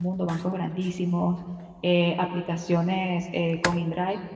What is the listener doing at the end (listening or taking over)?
listening